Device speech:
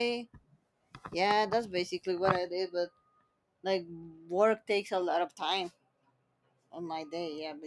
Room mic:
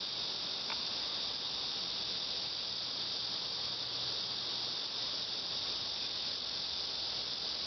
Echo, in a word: none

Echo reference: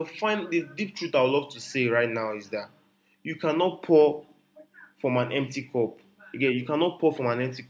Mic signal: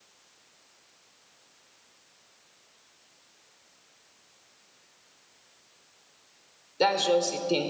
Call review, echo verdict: none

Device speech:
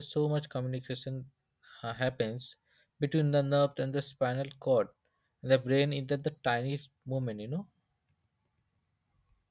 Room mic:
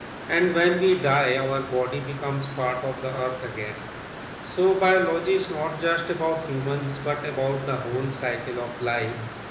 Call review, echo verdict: none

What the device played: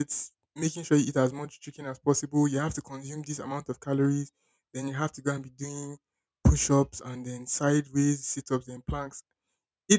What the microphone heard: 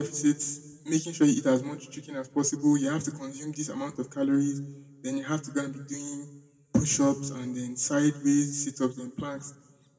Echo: present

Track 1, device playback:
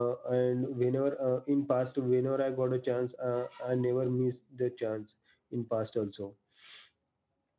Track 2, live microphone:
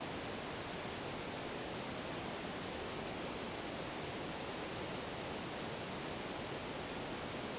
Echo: none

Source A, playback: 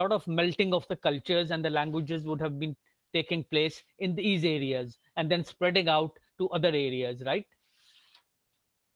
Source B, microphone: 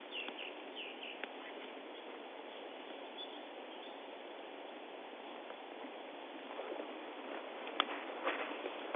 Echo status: none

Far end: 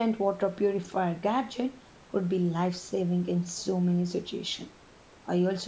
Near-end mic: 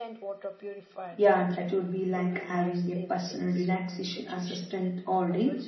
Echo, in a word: present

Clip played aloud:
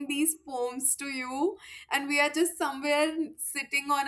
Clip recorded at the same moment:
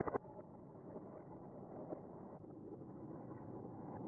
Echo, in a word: none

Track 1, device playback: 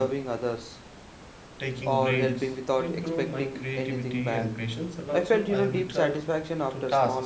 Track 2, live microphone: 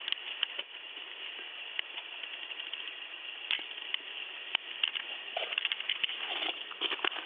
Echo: none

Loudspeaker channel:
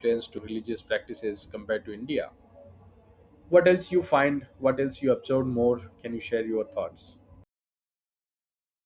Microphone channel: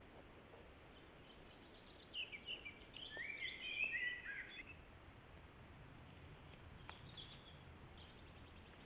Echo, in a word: none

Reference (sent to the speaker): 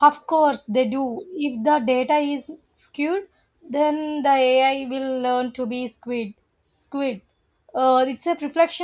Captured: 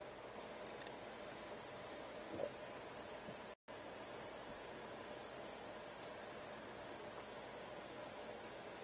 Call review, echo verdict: none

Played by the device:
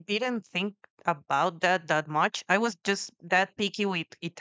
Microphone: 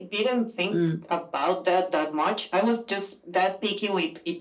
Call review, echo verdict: present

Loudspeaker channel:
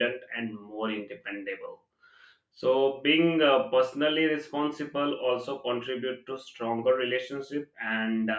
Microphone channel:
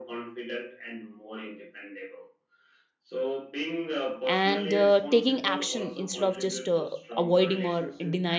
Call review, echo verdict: present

